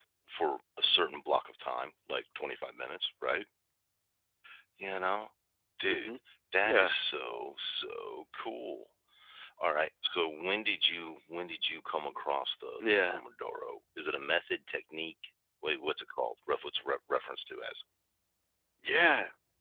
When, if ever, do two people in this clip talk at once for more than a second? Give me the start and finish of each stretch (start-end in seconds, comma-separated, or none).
none